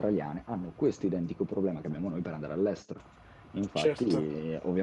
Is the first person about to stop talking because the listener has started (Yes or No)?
No